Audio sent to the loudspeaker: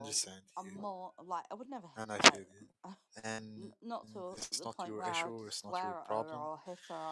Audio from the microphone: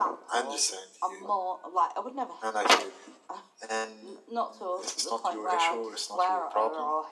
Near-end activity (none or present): none